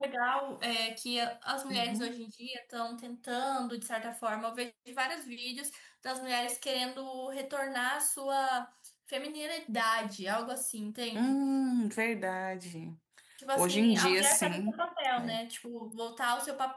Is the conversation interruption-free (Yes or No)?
No